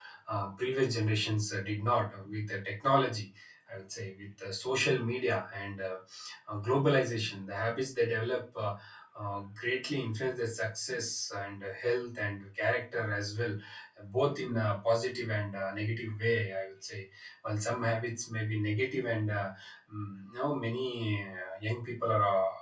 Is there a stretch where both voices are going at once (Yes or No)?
No